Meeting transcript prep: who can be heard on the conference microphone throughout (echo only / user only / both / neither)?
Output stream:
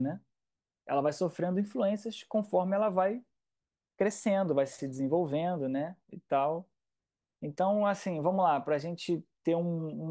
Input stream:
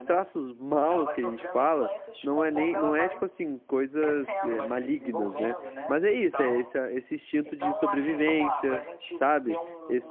both